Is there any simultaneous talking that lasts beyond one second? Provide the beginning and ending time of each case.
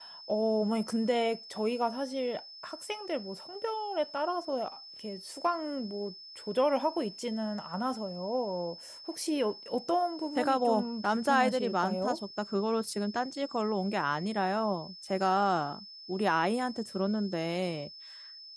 10.4-12.2

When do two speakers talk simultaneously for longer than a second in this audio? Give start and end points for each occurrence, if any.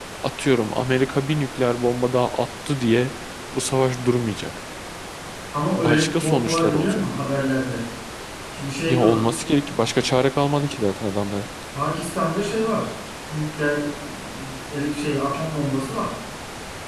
5.7-7.0

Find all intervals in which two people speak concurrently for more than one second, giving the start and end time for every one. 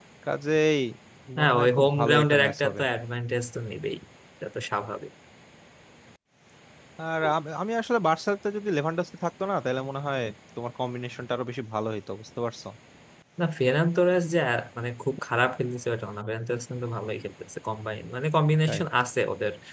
1.4-2.8

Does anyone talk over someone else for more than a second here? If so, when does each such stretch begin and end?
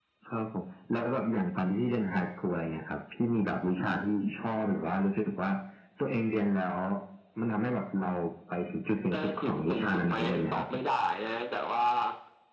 9.1-10.8

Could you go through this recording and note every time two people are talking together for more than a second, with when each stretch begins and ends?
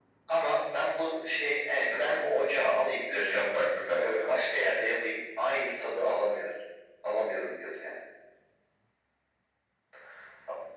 none

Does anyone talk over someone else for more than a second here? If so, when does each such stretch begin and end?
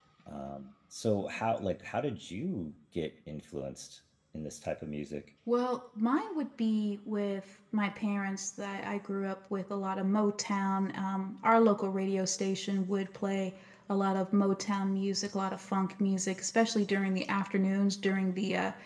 none

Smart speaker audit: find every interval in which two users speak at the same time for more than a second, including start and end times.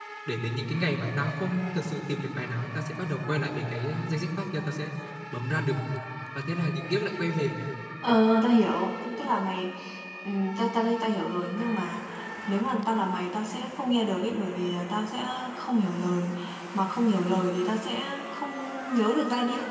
none

